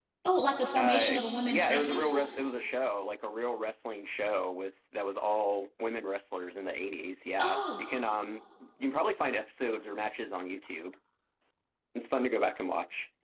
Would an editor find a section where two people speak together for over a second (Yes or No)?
Yes